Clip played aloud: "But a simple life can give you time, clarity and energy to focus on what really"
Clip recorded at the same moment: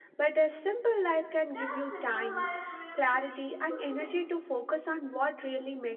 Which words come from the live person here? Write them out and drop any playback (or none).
Can a simple life really be deeply fulfilling?